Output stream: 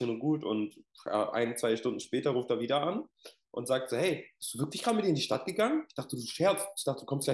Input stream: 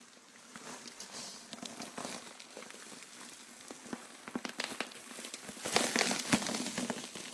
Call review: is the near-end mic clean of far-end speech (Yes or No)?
Yes